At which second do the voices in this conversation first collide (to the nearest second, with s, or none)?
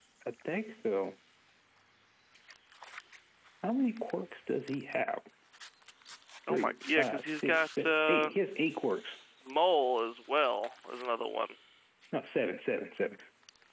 6 s